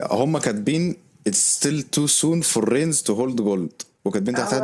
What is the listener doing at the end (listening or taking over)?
listening